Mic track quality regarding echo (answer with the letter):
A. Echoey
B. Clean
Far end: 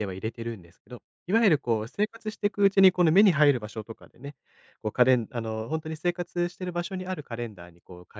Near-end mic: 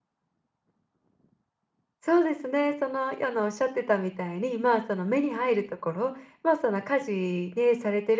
B